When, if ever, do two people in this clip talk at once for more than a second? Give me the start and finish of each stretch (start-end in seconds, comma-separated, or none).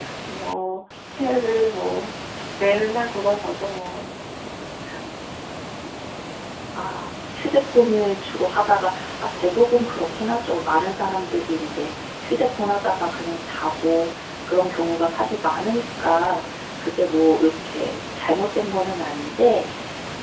none